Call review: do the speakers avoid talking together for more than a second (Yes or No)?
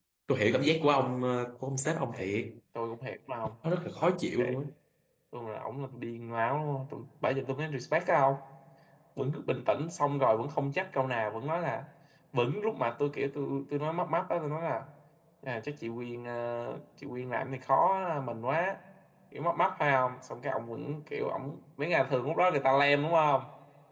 Yes